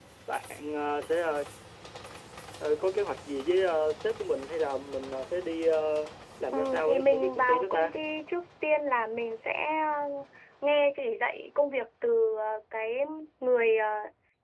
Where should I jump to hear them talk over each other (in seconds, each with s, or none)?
6.5 s